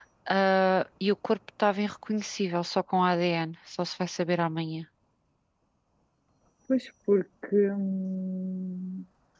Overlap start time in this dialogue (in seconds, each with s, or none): none